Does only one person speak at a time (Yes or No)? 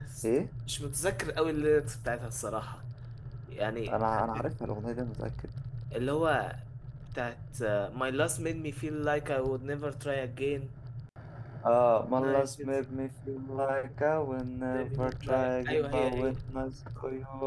No